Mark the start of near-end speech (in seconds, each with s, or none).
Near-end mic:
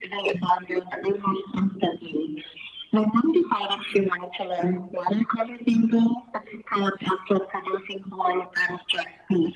none